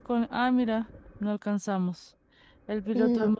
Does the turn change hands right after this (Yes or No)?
No